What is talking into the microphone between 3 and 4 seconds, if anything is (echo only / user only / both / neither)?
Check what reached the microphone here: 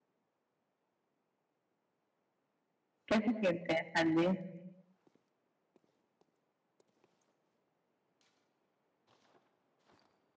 user only